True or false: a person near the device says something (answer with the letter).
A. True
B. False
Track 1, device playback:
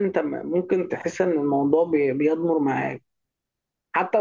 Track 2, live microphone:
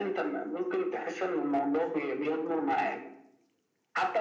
B